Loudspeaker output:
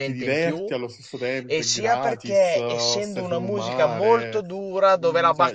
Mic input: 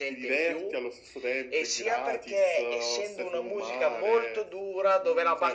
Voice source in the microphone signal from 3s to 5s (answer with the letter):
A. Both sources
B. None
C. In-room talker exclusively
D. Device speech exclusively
D